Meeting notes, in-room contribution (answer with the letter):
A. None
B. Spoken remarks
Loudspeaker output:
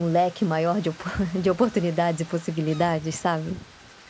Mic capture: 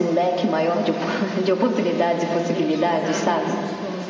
B